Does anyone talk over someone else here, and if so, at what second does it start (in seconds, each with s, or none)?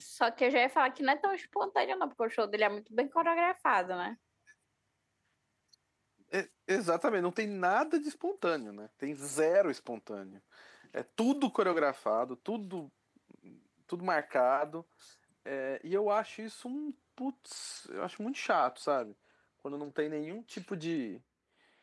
none